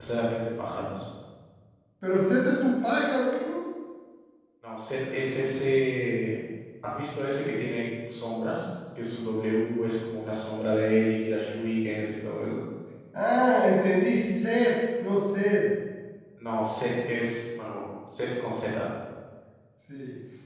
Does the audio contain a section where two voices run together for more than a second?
No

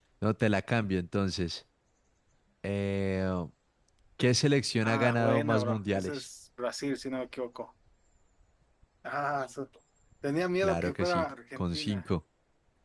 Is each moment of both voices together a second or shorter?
No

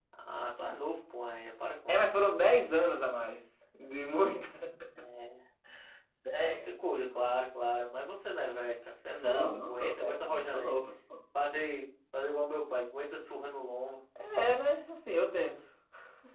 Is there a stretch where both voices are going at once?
Yes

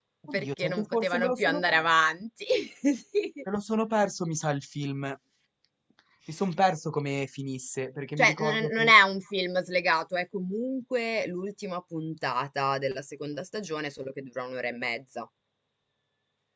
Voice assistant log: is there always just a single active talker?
No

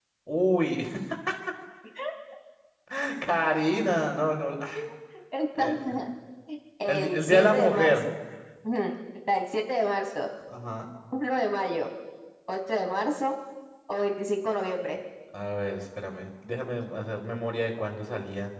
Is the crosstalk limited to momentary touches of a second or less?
No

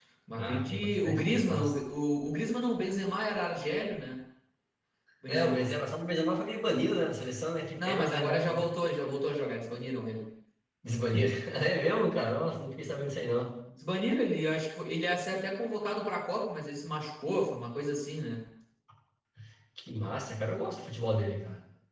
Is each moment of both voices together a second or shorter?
No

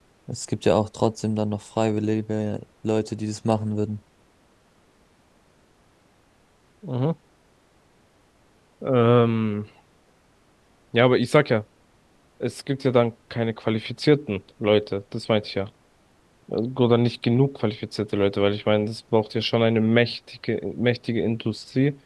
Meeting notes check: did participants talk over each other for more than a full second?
No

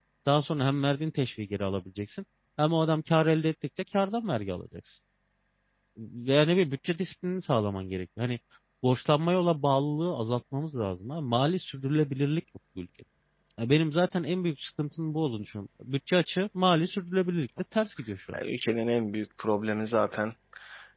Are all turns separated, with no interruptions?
Yes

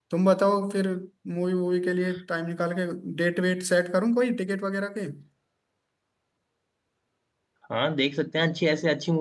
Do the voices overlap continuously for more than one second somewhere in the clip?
No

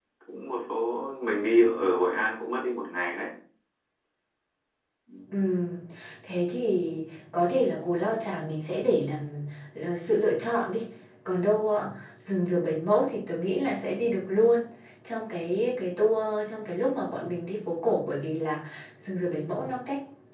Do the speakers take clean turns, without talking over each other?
Yes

